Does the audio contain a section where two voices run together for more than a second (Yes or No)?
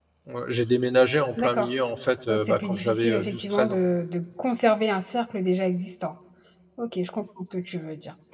Yes